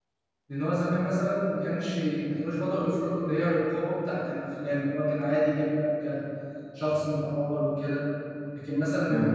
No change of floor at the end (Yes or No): Yes